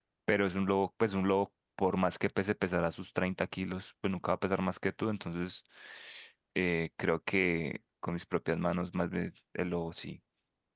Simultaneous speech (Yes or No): No